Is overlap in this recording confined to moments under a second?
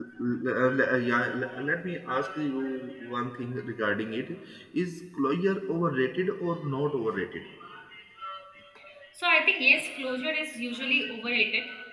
Yes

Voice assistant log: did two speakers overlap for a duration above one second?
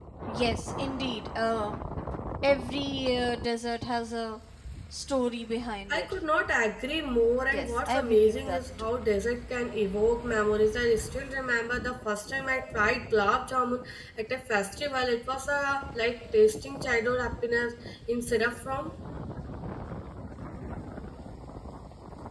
Yes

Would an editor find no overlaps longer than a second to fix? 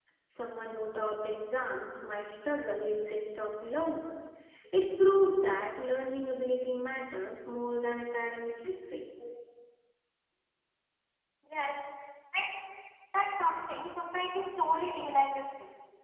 Yes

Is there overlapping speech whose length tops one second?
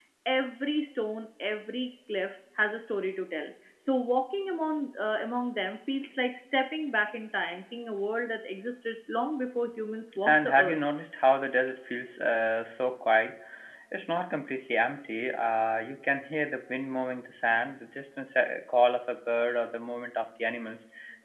No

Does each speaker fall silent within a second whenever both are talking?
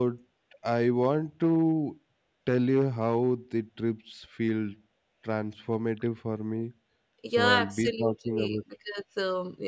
No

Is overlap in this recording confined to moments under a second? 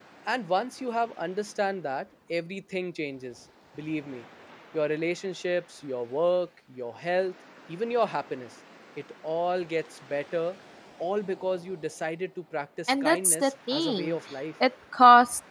No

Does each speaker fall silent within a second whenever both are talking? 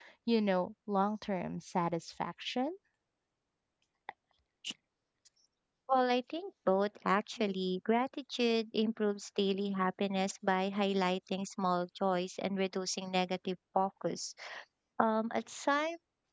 Yes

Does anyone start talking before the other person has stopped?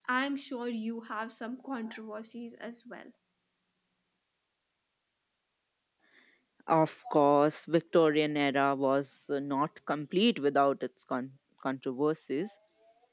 No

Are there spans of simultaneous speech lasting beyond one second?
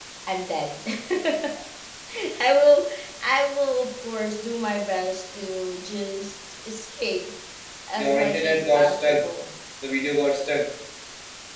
Yes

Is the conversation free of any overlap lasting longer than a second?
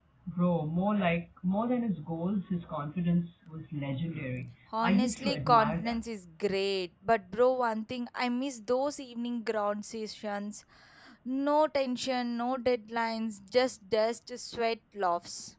No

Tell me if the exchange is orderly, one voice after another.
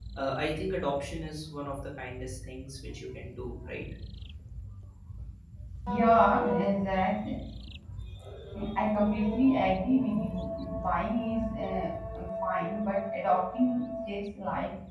Yes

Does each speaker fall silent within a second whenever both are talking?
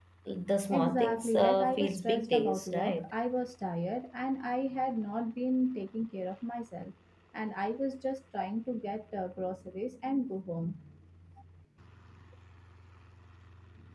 No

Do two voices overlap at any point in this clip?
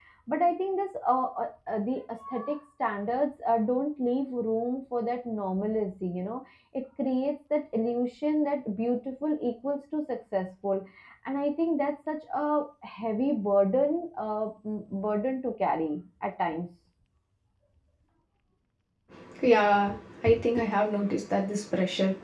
No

